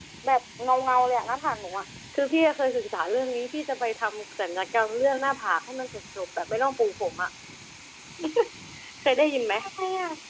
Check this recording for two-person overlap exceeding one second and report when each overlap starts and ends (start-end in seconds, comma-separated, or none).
none